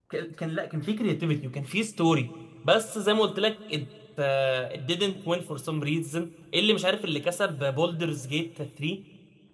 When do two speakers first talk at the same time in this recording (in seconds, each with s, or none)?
none